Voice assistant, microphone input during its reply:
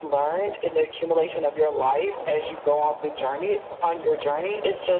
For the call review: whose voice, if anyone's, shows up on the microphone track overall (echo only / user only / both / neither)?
echo only